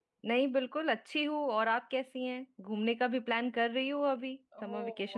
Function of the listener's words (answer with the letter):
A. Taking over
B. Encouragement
A